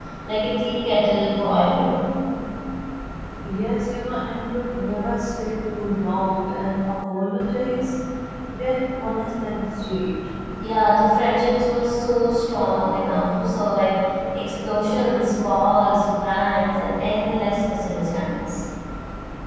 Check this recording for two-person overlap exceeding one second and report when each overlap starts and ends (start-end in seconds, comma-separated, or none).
none